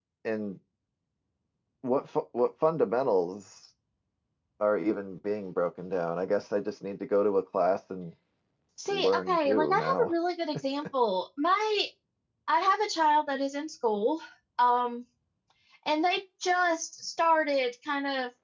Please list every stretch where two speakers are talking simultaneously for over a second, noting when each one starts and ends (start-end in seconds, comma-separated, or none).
8.9-10.1